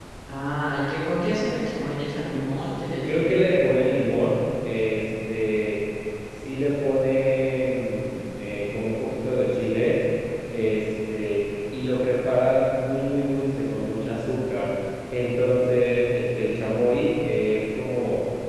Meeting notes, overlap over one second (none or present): none